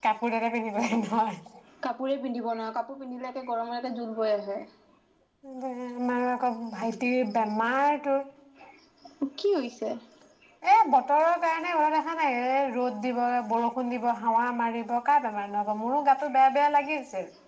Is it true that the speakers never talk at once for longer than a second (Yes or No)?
Yes